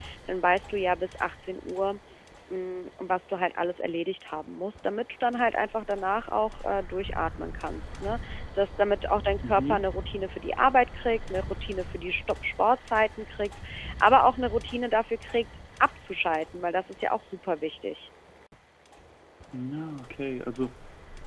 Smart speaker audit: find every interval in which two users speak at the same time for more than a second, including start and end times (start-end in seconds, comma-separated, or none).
none